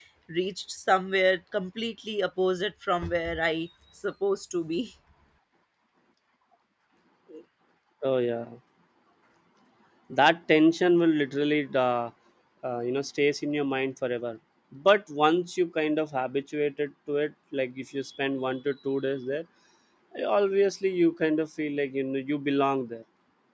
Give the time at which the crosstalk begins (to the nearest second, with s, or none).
none